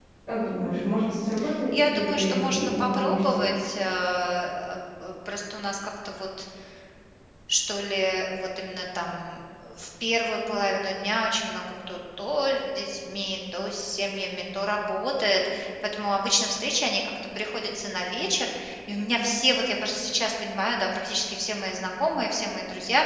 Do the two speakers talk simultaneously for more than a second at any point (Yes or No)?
Yes